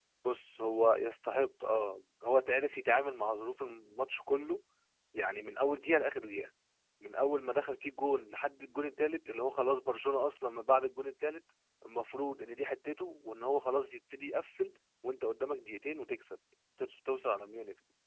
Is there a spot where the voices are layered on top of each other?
No

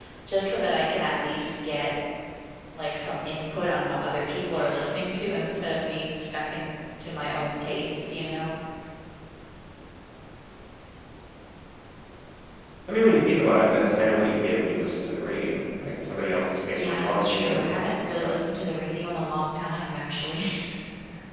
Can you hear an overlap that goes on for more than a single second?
Yes, from 16.7 s

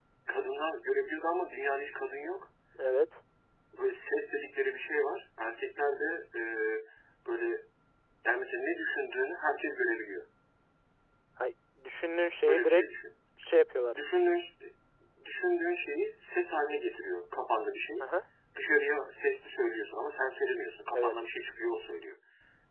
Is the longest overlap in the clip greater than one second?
No

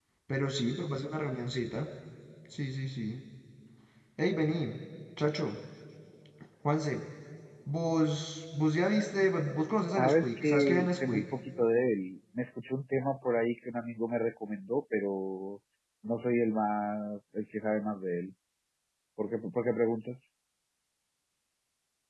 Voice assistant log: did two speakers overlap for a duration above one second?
Yes, from 10.0 s

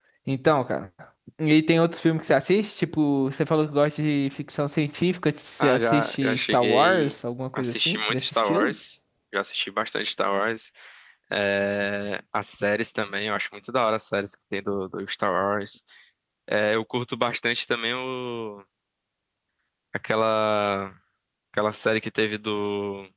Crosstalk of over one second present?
Yes, from 5.6 s

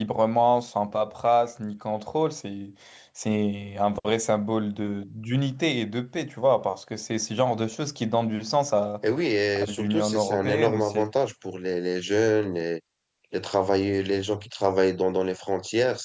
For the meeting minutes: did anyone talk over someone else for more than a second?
Yes, from 9.6 s

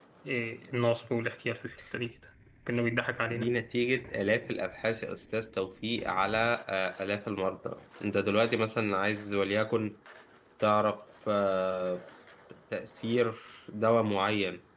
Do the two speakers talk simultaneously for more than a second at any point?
No

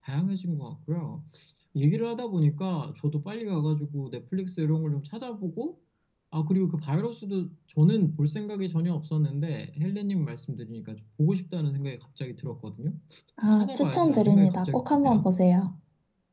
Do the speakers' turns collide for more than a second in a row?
Yes, from 13.4 s

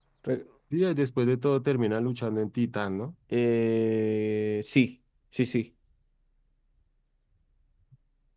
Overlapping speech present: No

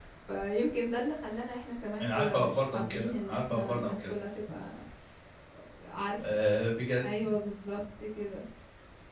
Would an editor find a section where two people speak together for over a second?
Yes, from 2.0 s

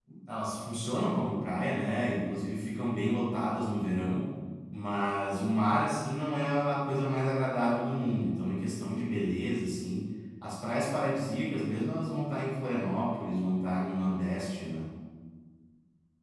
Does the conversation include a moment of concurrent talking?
No

